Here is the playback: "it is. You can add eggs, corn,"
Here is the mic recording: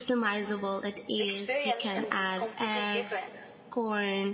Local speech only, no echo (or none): the experience can be completely different.